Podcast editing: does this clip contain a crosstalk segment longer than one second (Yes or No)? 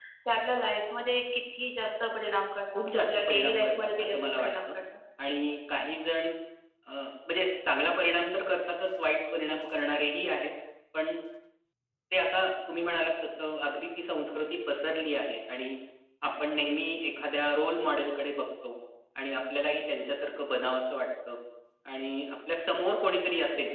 Yes